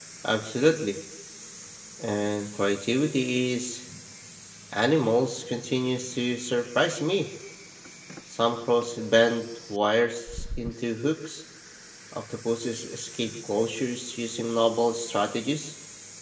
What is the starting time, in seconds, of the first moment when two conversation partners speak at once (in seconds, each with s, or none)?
none